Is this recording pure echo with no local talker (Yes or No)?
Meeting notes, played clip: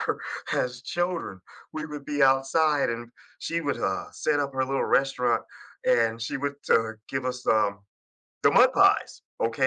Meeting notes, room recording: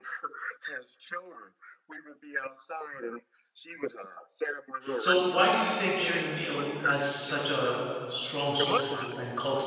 No